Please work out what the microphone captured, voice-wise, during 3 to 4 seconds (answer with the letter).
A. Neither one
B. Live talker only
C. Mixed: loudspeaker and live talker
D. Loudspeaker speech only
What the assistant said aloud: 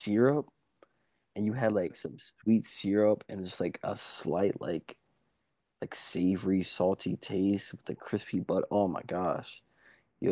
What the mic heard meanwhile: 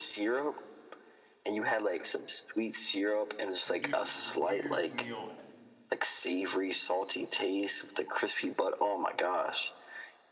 C